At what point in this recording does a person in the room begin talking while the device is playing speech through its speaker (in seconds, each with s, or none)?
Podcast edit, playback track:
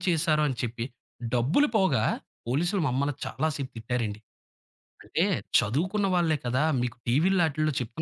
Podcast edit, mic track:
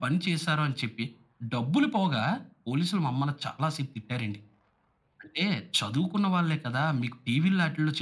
none